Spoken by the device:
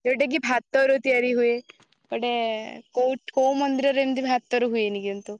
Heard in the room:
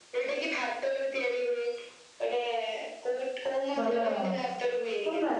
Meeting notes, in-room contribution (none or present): present